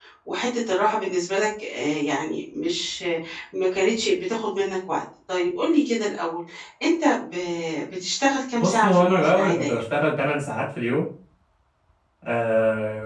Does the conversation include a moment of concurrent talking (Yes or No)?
Yes